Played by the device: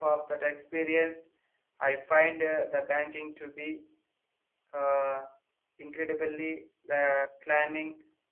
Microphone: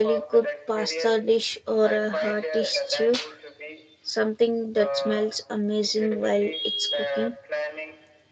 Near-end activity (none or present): present